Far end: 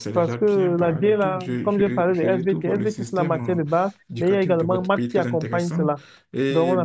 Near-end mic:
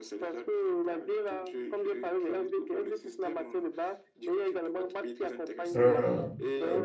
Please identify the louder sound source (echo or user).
user